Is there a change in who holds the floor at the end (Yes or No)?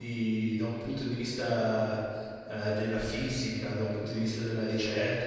No